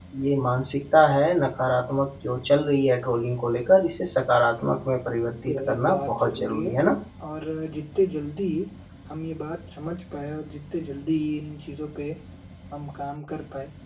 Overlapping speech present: Yes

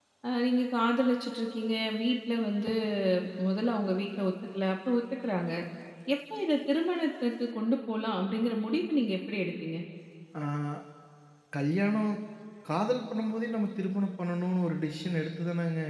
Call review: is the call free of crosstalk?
Yes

